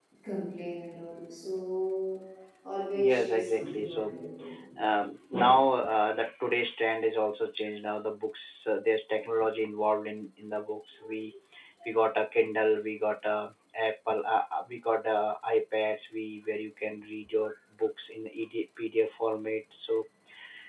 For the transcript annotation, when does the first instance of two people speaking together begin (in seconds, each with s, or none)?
2.9 s